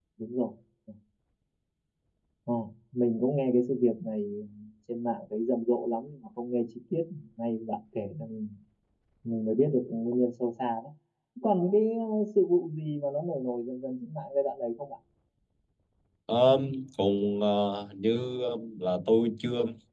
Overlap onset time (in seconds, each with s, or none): none